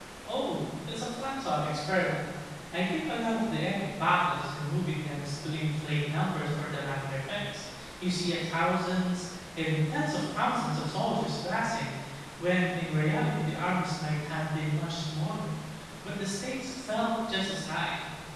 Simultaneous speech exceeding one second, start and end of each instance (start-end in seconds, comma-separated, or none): none